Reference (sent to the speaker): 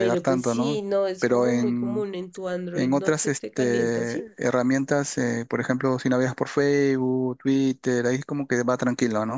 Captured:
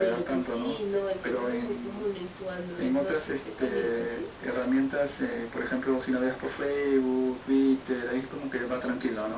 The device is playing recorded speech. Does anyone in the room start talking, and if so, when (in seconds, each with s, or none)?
none